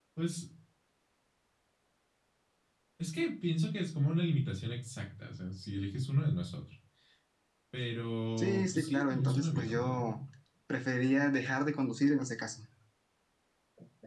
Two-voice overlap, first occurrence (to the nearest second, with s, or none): 8 s